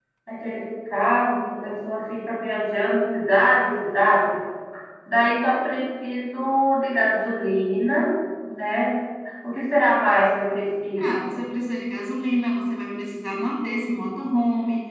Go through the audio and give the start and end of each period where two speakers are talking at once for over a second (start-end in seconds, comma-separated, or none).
none